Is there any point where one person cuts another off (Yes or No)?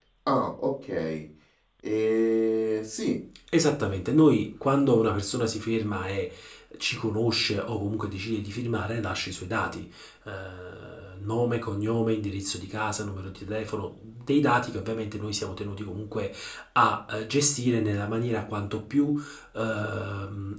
No